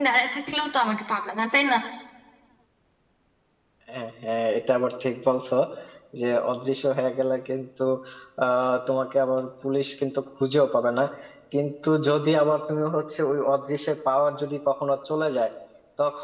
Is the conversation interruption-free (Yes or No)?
Yes